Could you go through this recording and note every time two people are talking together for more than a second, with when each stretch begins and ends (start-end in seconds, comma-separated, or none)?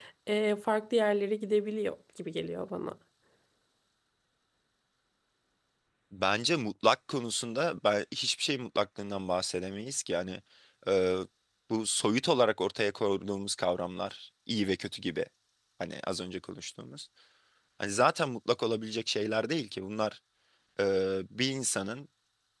none